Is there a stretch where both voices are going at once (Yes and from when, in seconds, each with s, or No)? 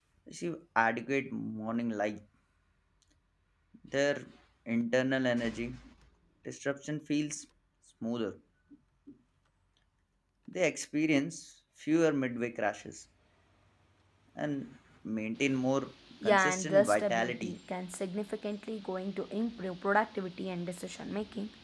Yes, from 16.2 s